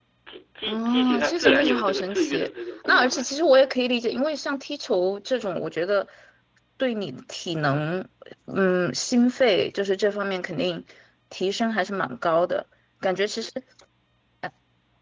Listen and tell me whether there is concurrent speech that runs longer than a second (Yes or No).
Yes